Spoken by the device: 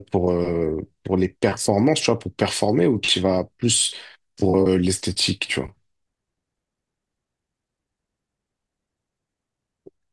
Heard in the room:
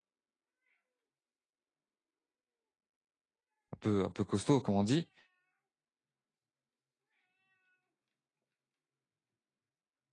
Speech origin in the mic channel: user only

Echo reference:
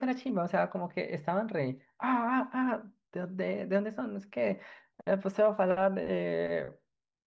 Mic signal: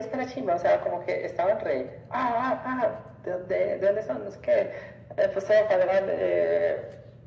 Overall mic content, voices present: echo only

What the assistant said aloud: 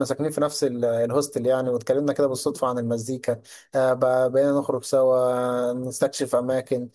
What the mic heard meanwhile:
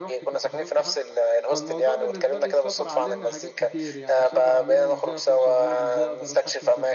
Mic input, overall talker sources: both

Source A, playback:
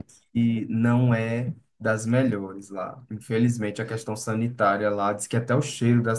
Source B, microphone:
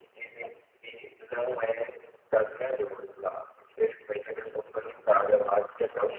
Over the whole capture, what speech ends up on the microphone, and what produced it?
echo only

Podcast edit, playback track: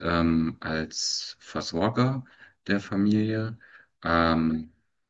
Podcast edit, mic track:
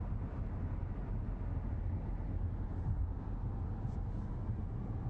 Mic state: neither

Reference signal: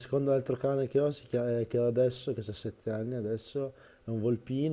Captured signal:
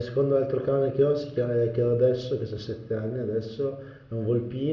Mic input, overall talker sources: echo only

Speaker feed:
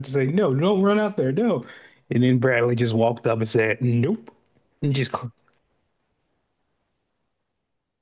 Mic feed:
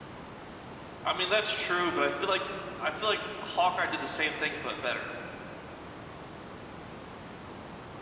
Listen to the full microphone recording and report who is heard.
user only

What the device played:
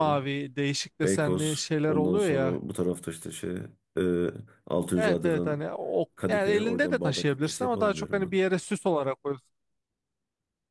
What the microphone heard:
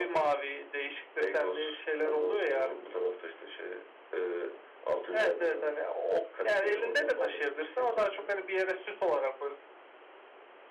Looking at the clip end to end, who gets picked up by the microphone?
echo only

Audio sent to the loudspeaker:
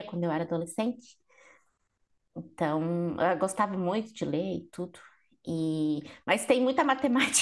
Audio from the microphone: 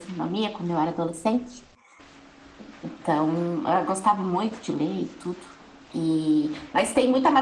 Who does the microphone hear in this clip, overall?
echo only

